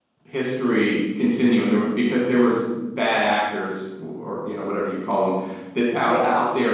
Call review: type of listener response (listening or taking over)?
listening